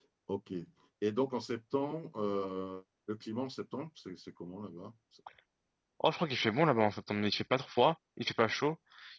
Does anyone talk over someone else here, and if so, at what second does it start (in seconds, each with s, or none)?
none